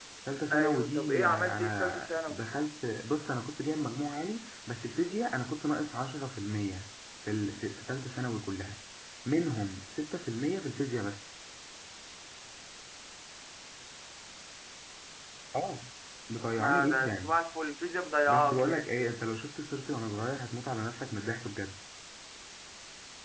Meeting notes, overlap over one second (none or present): present